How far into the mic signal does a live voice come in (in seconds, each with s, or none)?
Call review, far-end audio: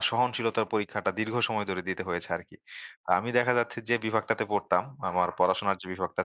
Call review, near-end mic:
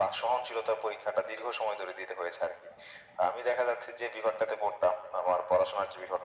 none